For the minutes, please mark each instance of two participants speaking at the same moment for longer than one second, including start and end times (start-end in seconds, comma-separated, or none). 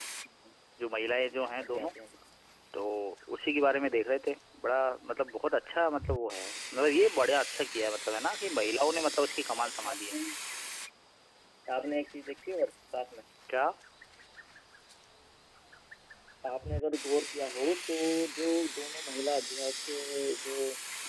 none